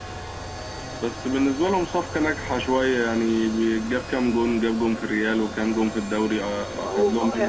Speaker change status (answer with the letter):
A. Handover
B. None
A